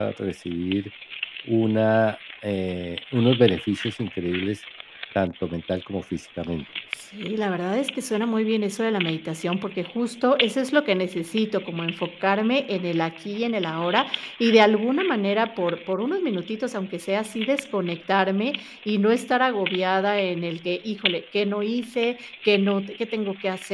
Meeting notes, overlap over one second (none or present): none